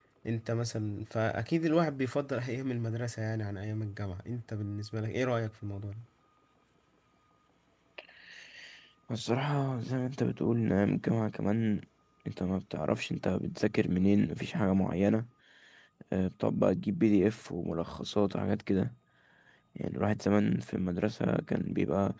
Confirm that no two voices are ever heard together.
Yes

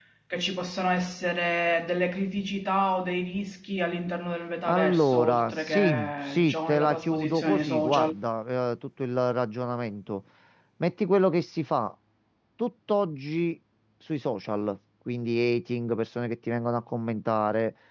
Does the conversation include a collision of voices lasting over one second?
Yes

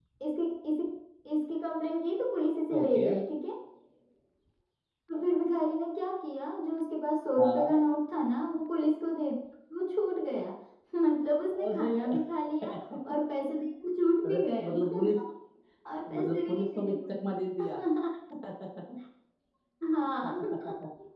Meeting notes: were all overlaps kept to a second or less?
No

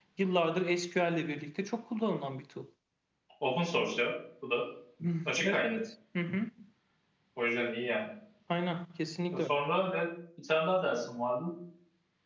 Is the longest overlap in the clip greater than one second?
No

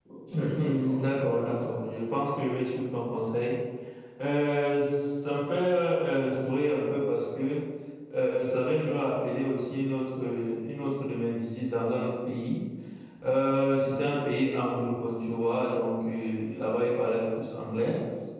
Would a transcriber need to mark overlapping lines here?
Yes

